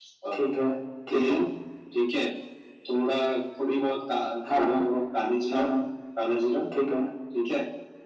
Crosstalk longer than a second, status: none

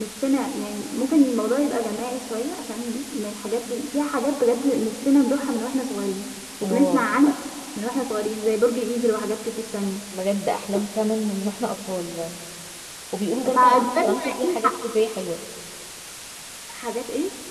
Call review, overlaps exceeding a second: present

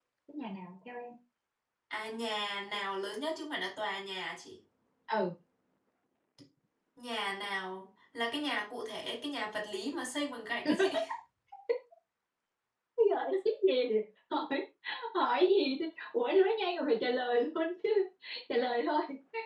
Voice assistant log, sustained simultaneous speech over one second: none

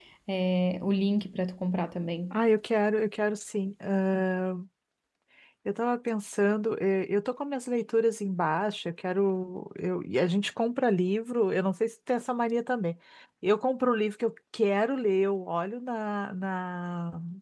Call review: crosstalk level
none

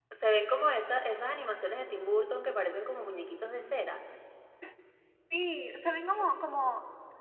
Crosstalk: none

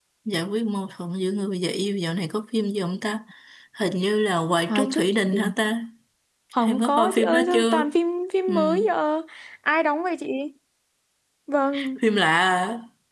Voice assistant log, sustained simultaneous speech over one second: present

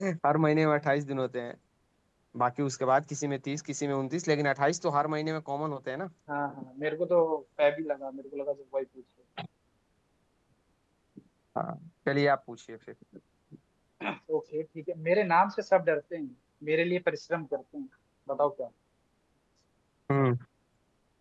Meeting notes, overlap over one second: none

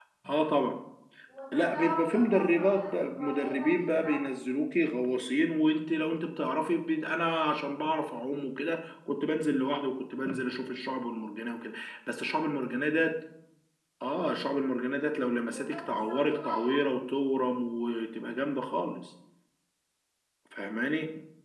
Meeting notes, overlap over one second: present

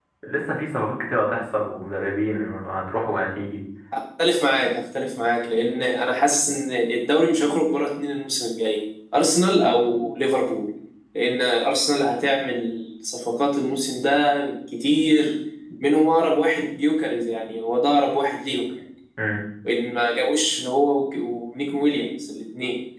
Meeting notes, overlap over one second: none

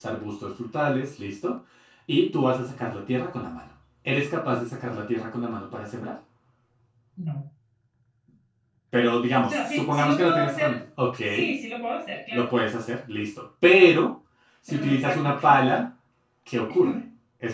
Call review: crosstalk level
present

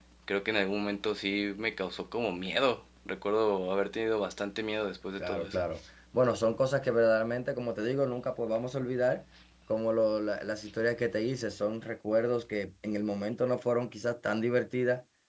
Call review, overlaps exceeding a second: none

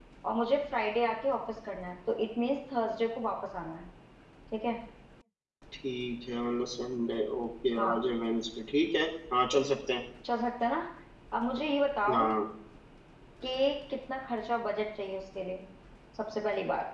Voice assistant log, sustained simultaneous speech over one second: none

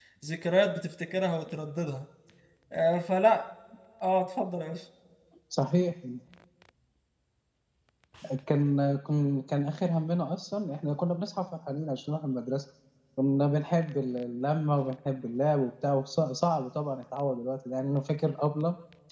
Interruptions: none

